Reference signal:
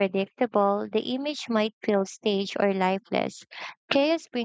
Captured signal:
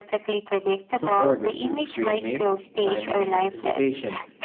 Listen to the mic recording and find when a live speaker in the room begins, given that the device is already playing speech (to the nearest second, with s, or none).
1 s